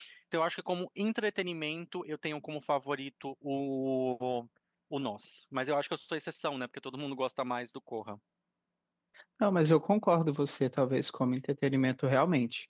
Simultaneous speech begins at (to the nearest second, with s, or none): none